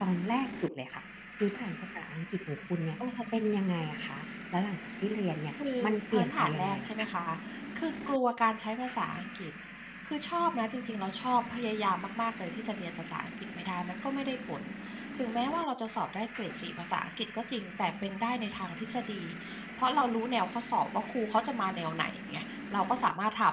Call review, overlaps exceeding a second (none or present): present